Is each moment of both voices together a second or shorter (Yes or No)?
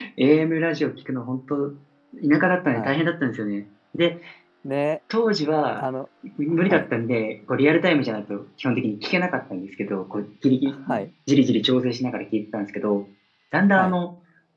Yes